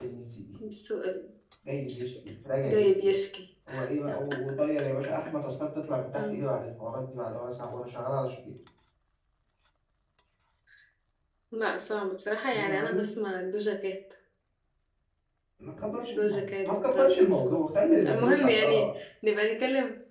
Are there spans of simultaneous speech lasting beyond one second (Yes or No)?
Yes